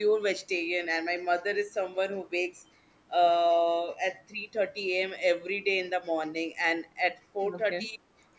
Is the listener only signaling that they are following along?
Yes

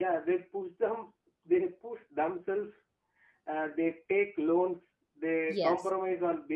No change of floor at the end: Yes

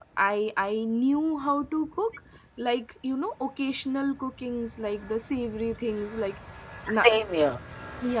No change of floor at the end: Yes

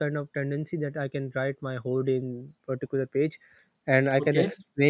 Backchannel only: Yes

